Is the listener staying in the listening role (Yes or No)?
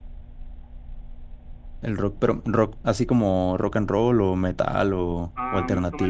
No